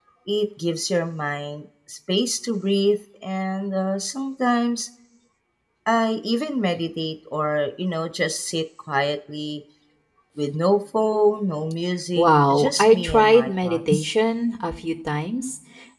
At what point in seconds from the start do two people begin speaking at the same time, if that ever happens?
12.2 s

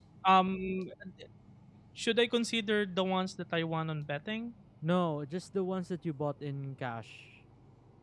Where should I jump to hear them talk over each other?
none

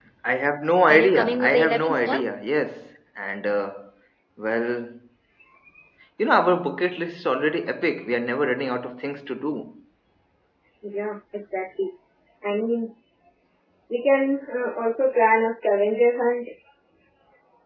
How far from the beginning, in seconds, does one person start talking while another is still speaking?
0.9 s

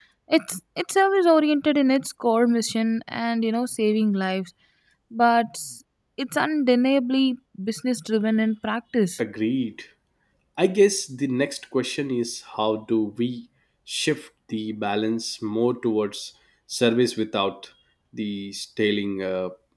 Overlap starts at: none

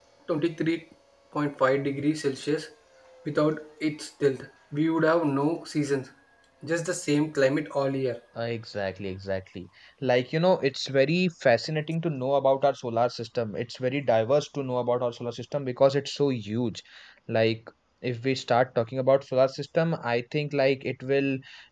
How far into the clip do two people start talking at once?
none

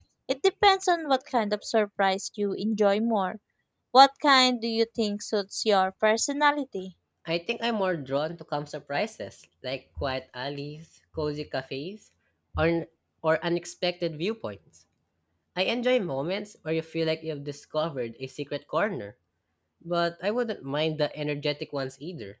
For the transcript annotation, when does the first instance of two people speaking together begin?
none

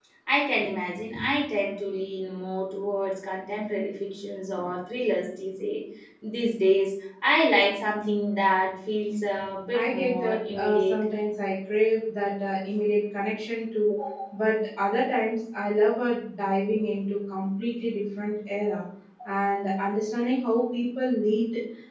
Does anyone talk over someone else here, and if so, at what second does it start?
9.7 s

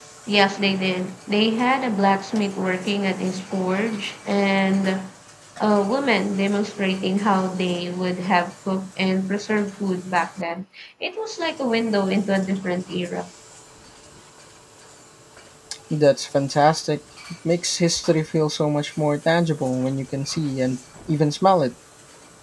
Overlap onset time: none

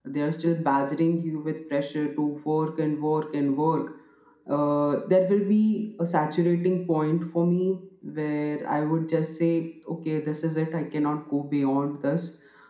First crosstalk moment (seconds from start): none

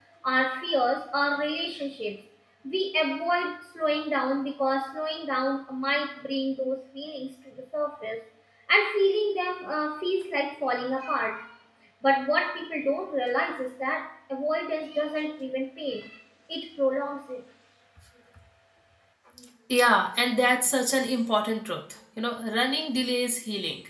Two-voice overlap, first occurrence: none

